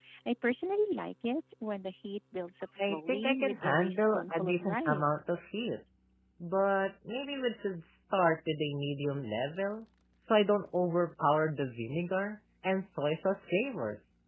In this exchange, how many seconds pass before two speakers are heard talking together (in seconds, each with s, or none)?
2.8 s